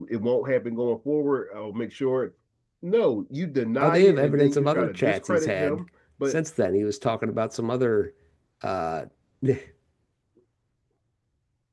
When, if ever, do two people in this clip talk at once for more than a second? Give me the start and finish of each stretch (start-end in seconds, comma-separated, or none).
3.8-5.8